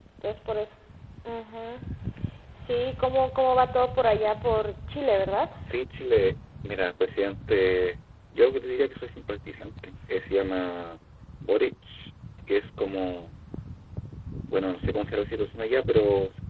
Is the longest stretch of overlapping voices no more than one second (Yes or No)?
Yes